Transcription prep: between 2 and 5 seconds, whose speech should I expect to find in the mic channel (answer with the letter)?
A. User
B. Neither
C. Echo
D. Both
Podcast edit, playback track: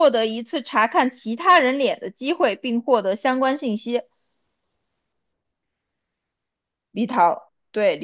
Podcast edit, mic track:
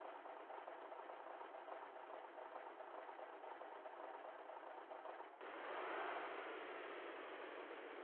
B